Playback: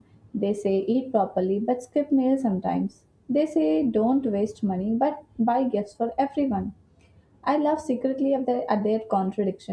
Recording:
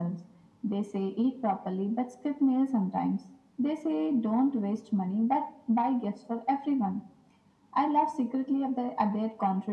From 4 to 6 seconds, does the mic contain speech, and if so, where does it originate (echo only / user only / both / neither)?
echo only